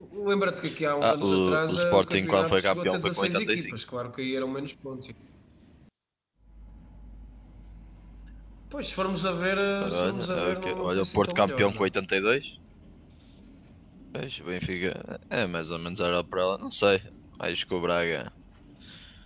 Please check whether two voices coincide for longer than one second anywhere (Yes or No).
Yes